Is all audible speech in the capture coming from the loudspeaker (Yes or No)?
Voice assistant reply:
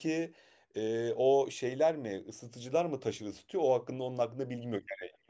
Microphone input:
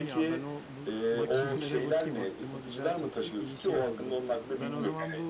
No